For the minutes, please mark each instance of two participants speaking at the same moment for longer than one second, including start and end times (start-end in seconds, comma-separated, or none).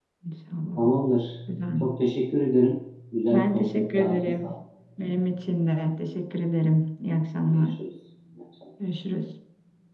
3.3-4.5